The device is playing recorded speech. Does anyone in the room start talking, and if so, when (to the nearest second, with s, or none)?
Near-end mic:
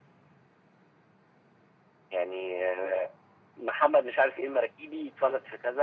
none